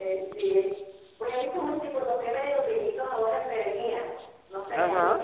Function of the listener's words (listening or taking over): taking over